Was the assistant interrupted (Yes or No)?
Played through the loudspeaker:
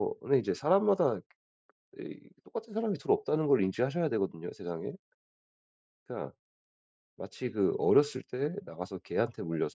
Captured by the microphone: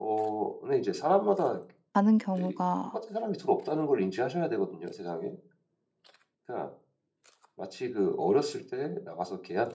Yes